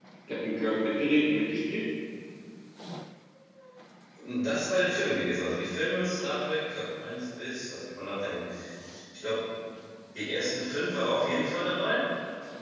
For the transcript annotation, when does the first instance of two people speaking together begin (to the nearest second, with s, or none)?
none